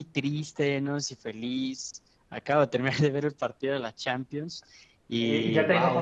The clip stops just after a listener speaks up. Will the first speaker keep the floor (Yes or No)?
No